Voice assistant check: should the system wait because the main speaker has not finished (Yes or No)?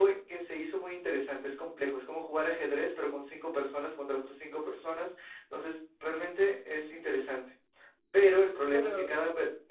Yes